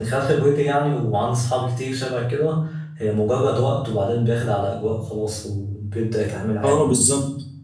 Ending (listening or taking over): taking over